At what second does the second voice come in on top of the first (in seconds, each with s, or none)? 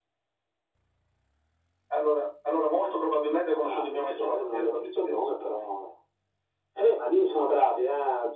3.6 s